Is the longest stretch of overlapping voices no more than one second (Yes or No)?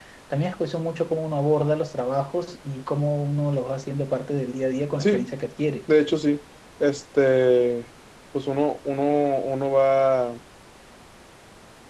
Yes